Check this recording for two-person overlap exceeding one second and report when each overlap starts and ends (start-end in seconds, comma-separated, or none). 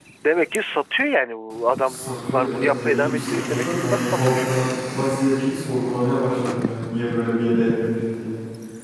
1.9-4.5